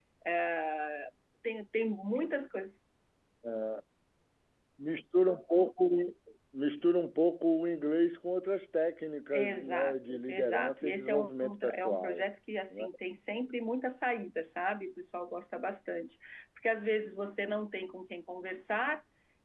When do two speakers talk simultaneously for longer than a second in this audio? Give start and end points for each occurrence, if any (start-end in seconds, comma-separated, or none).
9.3-12.2